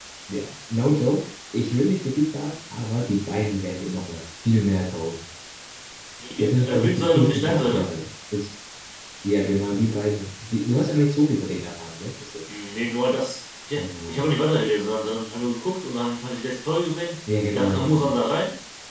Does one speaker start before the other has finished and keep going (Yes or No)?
Yes